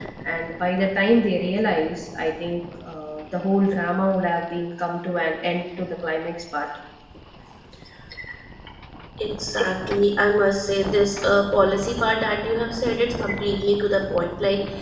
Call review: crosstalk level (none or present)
none